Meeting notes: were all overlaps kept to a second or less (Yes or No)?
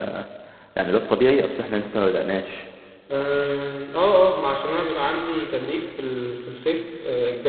Yes